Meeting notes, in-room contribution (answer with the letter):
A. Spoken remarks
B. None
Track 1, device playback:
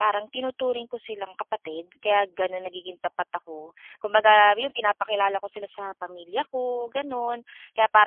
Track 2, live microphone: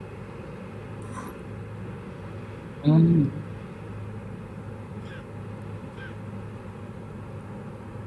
A